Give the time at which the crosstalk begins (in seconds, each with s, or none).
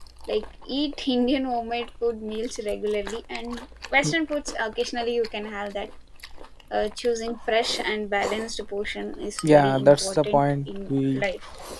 9.4 s